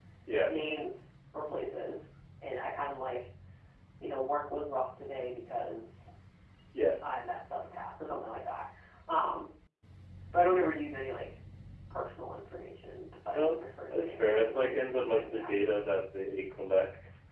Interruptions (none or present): present